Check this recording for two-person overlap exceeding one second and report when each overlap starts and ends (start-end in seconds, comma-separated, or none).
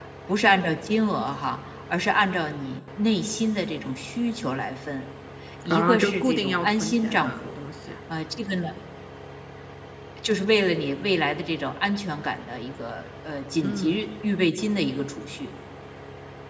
5.7-7.5